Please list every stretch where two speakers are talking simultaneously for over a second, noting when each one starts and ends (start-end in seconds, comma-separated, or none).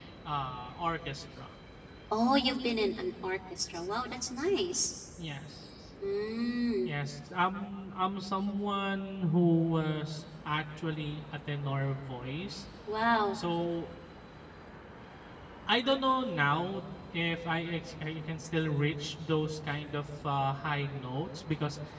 none